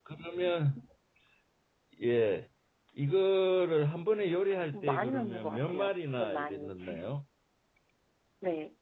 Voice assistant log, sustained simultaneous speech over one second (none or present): present